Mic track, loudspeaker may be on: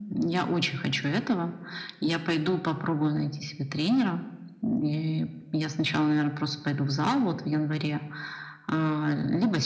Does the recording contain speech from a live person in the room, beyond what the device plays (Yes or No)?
No